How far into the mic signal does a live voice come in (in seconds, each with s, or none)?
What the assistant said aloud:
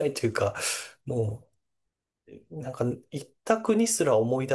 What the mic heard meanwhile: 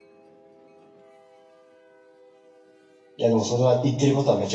3.2 s